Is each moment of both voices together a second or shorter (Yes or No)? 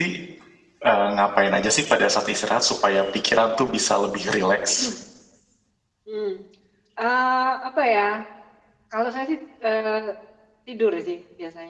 Yes